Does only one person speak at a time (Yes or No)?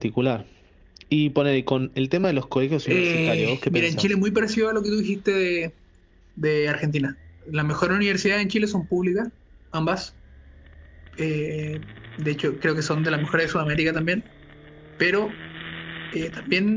No